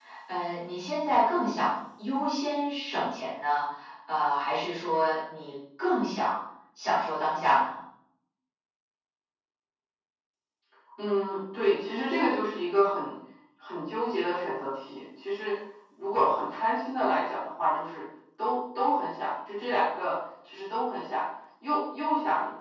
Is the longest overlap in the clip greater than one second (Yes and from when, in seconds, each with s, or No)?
No